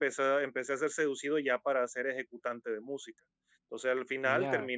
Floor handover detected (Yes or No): No